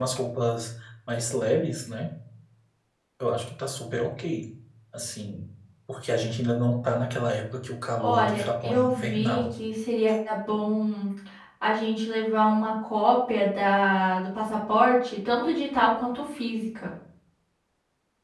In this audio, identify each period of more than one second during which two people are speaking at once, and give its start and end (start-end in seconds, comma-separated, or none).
8.0-9.4